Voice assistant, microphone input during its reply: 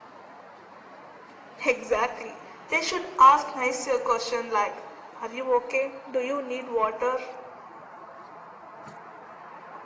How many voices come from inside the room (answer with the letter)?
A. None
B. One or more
A